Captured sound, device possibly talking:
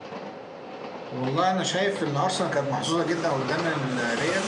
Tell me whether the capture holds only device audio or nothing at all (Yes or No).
No